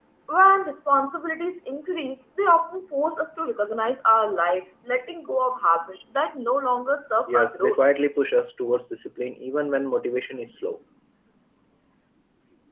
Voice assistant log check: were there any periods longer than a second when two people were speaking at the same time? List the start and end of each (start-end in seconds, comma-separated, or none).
none